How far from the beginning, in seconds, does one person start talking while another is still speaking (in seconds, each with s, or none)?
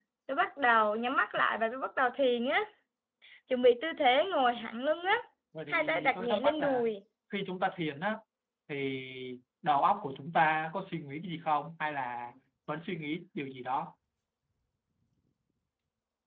5.7 s